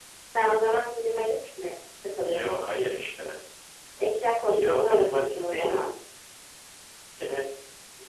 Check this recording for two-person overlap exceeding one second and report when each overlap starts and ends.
4.4-5.8

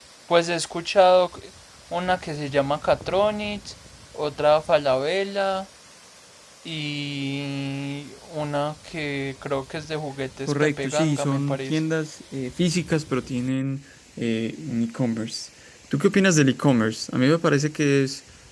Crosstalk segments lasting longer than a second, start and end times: 10.5-11.8

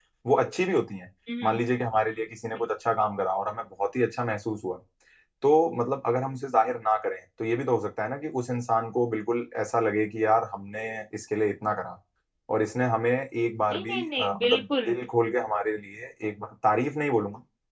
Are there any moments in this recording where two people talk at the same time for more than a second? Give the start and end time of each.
13.7-14.9

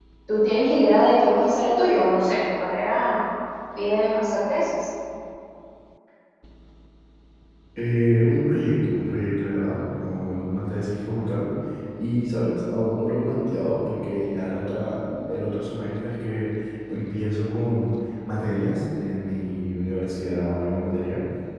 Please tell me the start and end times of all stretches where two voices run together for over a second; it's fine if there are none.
none

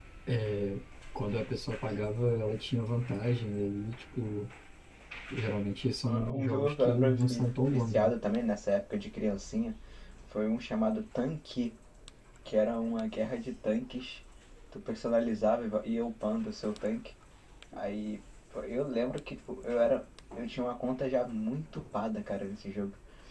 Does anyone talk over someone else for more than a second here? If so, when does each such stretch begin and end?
6.0-8.1

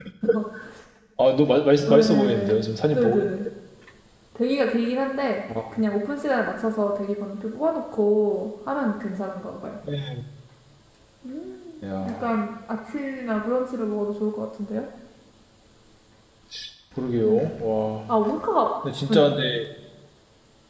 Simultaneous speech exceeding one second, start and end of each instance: 1.9-3.2

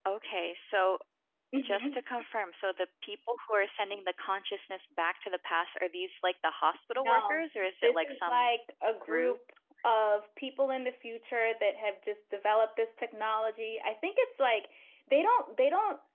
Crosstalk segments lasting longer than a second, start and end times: 6.9-8.5

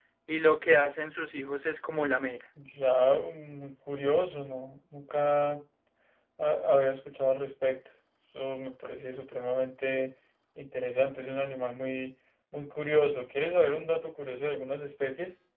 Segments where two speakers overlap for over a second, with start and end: none

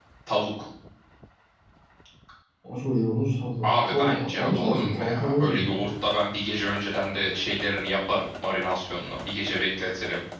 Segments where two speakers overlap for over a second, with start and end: 3.6-5.8

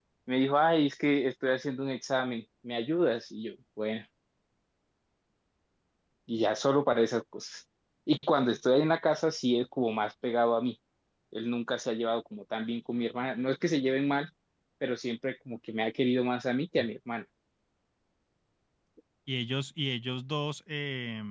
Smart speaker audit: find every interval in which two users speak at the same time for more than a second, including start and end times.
none

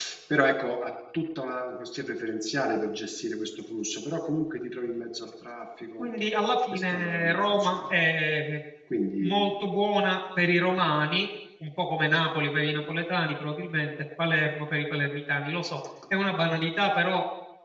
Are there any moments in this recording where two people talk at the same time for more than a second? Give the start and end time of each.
6.7-7.9

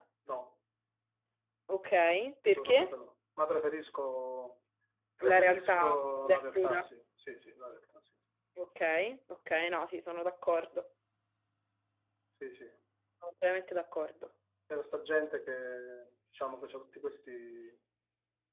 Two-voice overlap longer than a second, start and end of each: 5.3-6.8

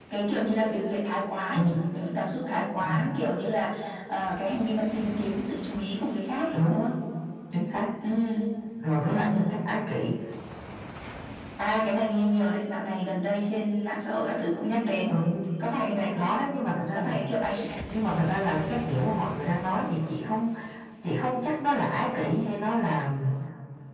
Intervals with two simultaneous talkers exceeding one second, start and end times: none

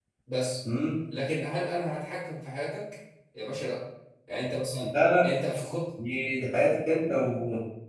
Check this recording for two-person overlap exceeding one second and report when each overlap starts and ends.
none

